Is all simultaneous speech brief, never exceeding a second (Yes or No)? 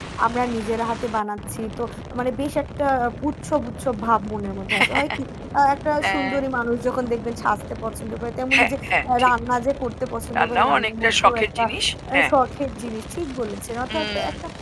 No